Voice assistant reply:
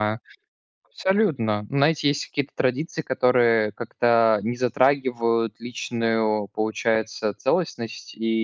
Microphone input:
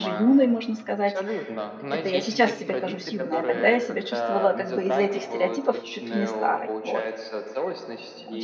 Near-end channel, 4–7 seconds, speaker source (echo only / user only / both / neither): both